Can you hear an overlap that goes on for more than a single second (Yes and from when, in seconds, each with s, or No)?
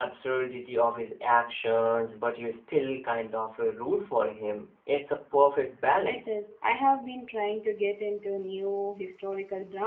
No